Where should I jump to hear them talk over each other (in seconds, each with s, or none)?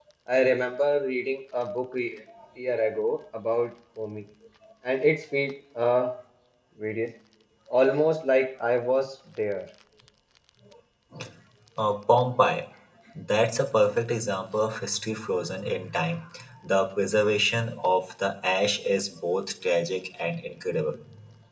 none